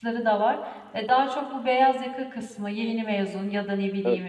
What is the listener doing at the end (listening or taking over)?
listening